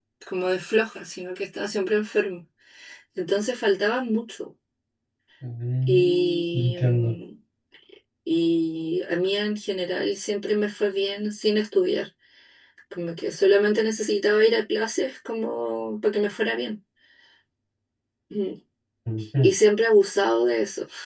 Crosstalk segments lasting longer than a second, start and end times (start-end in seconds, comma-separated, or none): 5.9-7.2